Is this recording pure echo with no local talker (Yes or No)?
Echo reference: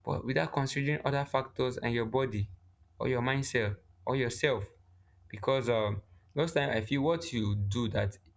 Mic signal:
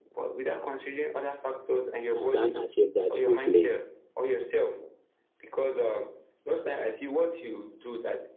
No